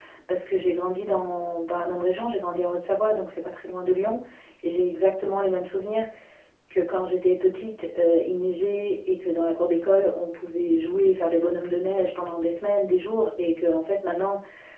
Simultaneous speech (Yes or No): No